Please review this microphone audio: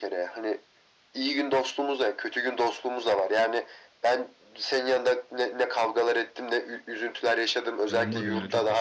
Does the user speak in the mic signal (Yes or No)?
Yes